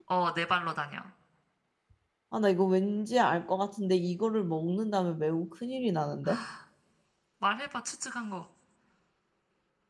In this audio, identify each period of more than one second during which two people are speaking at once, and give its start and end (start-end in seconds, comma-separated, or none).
none